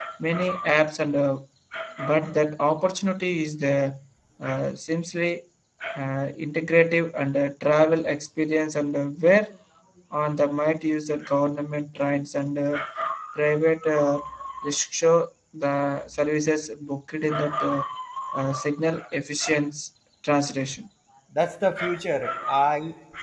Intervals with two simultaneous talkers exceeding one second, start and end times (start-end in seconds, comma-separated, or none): none